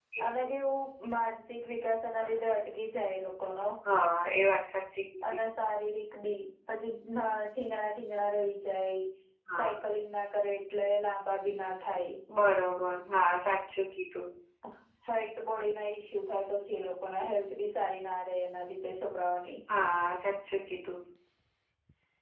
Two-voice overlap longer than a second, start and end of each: none

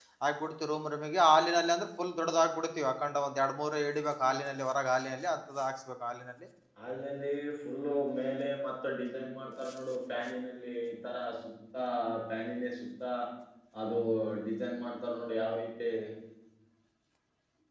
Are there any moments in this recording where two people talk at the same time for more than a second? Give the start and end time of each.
none

